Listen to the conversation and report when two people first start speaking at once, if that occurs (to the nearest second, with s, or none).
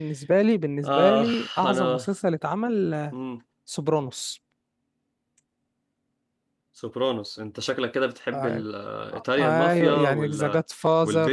1 s